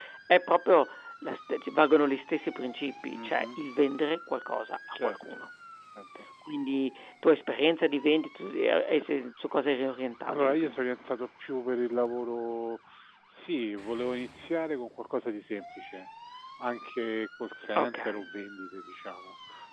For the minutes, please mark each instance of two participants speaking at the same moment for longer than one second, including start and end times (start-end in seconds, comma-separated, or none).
none